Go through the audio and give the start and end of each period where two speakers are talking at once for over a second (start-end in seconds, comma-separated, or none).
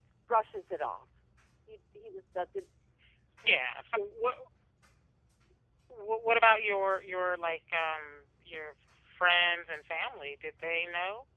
none